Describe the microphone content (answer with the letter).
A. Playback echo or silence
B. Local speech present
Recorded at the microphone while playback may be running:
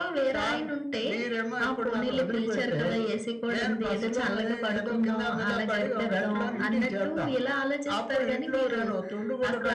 B